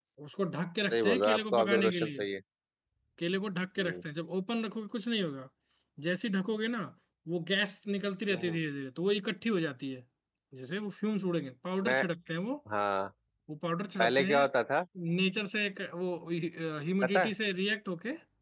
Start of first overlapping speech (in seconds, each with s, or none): 0.9 s